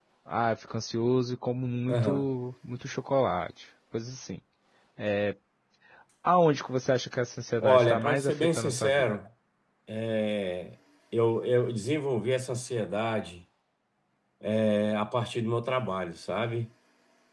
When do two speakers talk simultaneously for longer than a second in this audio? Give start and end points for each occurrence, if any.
7.6-9.0

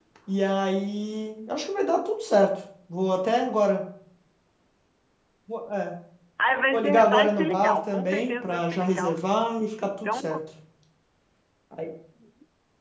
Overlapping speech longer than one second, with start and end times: 6.7-9.2

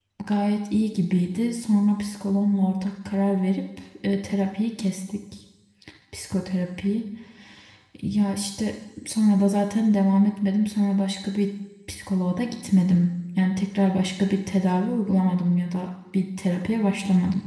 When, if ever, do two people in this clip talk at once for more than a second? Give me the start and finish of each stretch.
none

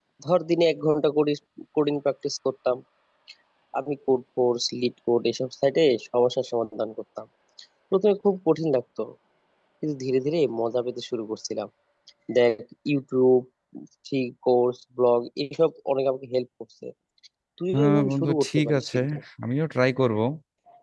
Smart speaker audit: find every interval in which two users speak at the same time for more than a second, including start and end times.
17.7-19.0

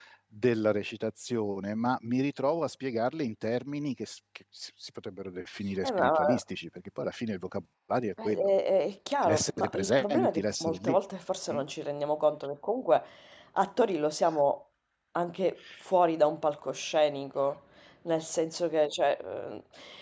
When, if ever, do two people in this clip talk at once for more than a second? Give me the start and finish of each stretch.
9.2-11.0

